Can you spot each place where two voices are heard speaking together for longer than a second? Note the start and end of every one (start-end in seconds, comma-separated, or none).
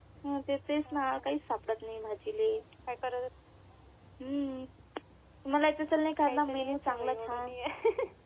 6.2-7.5